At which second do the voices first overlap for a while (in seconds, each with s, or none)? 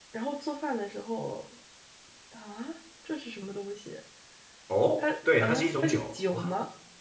5.0 s